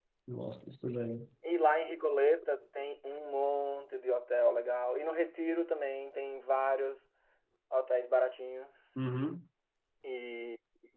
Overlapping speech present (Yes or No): No